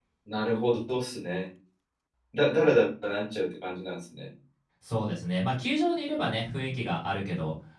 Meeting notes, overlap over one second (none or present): none